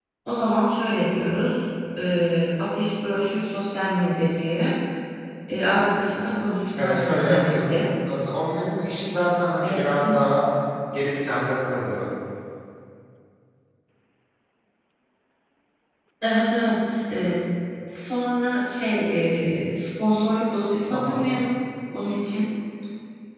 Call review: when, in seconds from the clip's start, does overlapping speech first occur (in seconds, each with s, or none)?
6.8 s